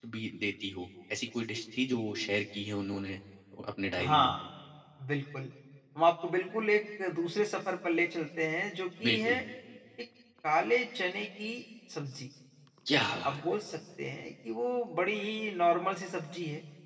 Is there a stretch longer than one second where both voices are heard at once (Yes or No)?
No